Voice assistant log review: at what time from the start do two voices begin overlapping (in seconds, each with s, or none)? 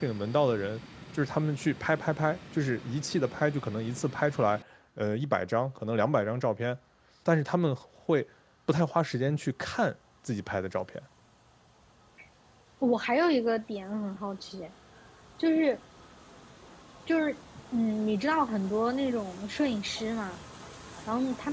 none